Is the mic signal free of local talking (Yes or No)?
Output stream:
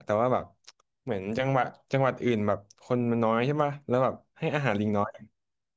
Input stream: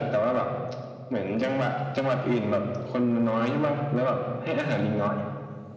Yes